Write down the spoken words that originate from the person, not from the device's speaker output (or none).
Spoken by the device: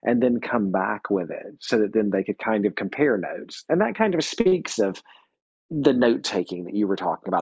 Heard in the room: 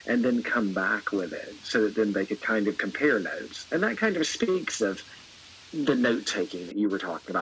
none